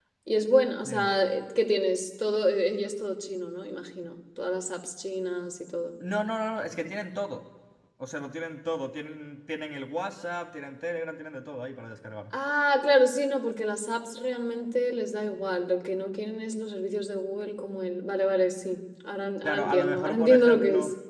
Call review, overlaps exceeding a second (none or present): present